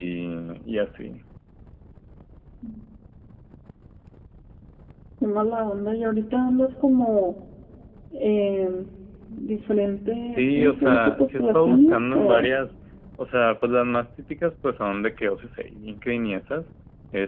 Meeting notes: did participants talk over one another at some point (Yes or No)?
Yes